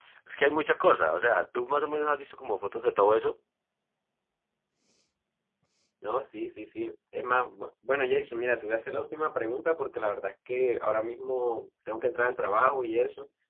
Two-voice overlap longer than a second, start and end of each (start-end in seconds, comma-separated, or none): none